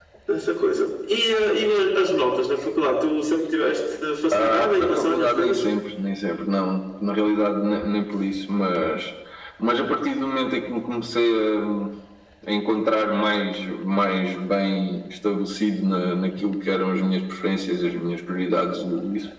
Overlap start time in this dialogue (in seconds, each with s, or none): 4.3 s